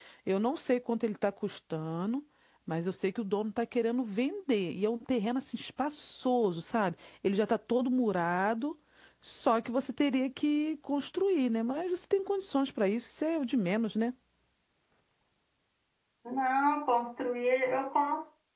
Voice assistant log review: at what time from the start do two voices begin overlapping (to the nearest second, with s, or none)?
none